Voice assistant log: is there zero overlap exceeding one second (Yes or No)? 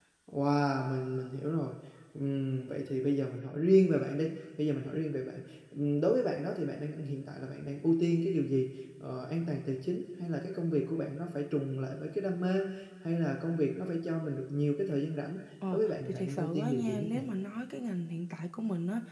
No